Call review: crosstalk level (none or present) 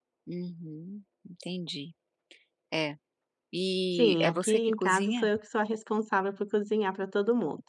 present